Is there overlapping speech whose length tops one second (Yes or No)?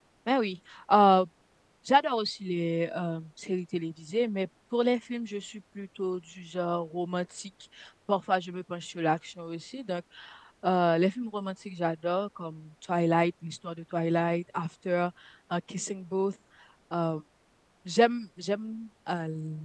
No